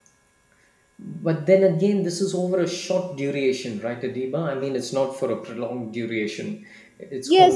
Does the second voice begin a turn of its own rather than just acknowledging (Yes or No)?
Yes